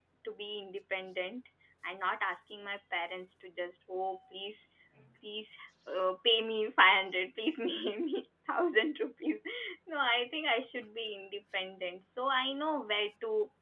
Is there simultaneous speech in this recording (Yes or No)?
No